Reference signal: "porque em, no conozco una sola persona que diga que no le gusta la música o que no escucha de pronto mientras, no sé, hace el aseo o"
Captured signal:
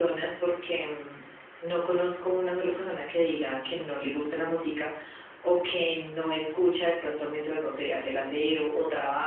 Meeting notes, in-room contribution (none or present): none